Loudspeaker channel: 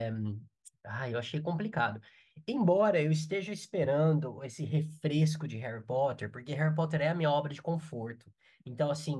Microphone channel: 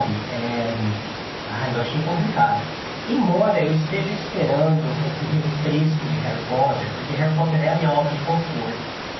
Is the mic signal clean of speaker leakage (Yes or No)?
No